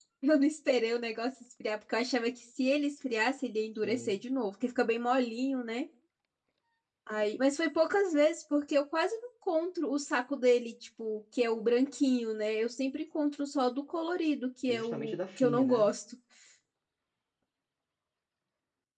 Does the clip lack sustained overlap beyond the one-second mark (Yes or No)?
No